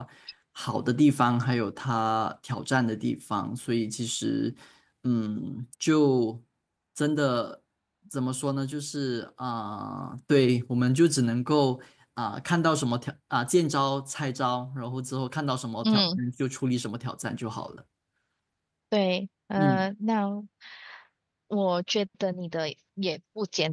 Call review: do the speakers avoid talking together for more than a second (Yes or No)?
Yes